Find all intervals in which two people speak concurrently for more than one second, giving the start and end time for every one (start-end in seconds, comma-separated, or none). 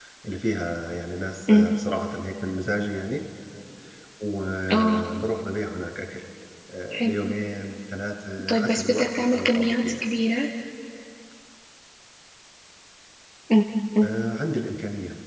8.5-10.0